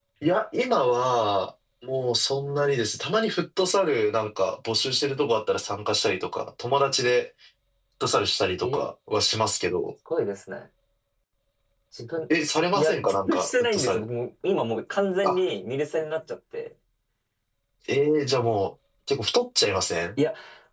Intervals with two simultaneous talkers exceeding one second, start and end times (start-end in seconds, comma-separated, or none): 12.7-14.0